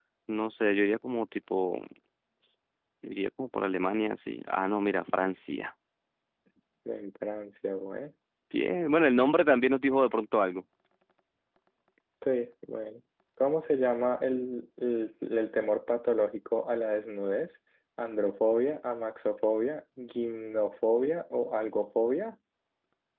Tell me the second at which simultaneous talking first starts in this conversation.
none

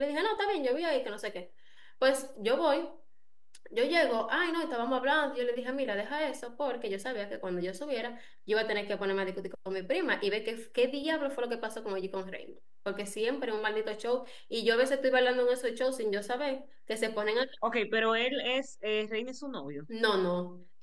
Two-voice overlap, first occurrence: none

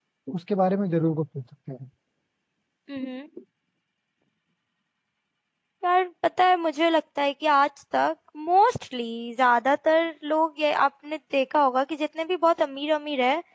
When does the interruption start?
none

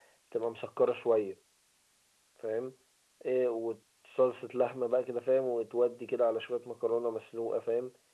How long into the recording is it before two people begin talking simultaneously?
none

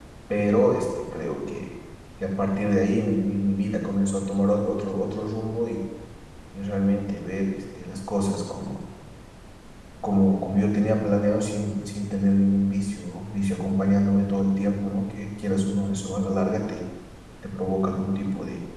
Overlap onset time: none

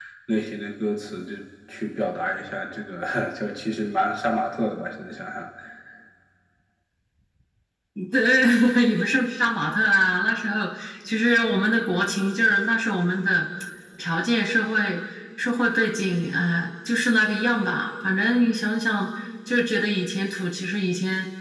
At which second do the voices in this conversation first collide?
none

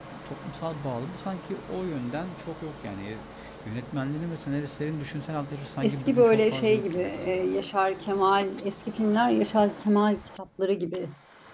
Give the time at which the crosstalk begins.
5.8 s

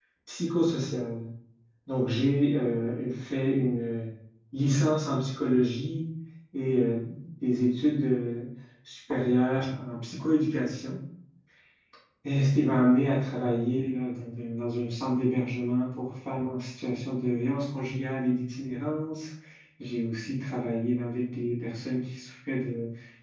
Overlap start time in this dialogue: none

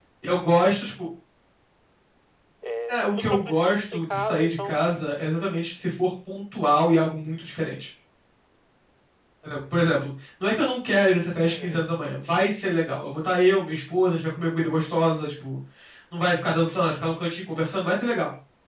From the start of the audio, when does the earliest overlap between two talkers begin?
2.9 s

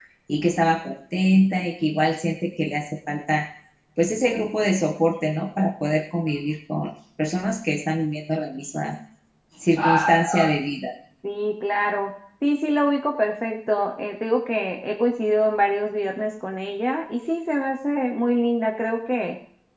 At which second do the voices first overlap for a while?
none

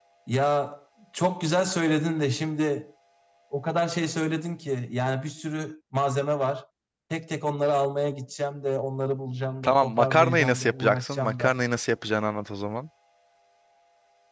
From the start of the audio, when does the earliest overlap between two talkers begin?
9.6 s

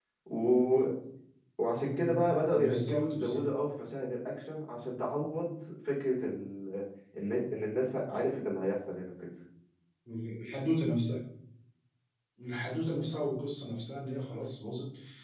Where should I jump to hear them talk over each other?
1.7 s

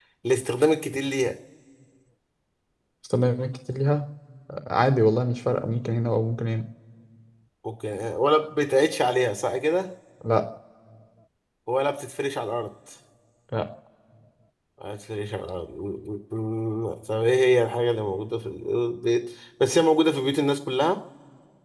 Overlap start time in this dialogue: none

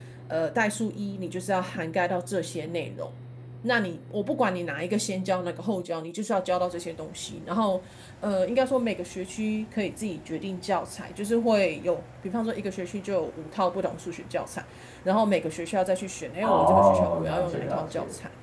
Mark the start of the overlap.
16.4 s

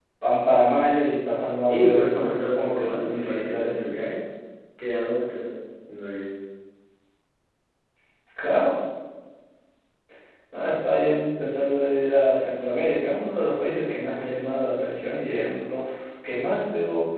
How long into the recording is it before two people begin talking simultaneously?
1.7 s

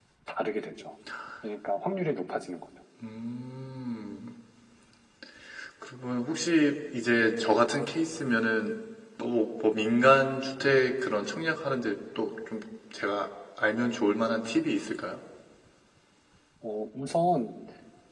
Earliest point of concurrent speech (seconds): none

